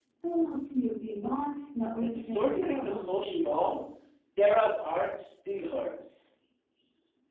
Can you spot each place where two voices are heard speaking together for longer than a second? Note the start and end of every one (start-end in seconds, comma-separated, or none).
2.0-3.5